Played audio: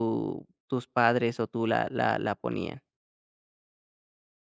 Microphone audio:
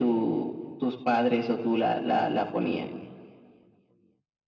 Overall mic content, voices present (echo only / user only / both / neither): echo only